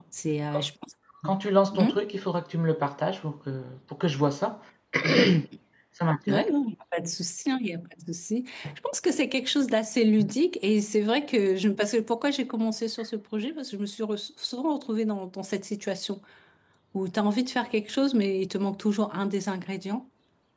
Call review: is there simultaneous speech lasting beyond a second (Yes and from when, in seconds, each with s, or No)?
No